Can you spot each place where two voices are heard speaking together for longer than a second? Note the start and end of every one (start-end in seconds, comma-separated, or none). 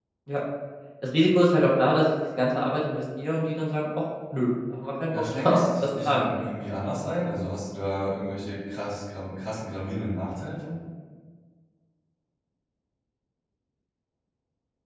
5.1-6.4